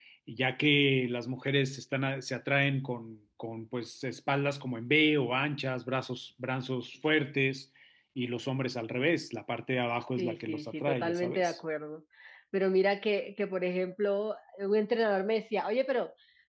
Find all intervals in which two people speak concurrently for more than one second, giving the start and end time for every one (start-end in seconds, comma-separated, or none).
10.2-11.6